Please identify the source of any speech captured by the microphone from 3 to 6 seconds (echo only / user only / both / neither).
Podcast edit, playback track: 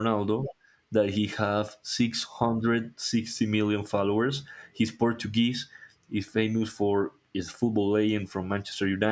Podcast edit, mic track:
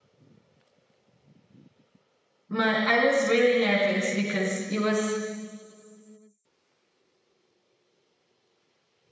user only